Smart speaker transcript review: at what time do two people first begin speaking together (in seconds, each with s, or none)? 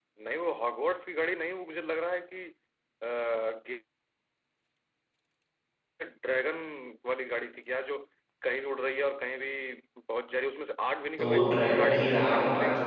11.2 s